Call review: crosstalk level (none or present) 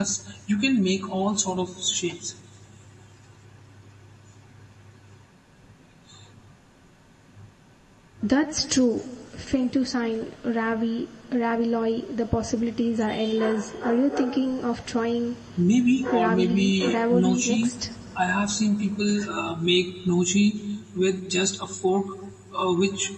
present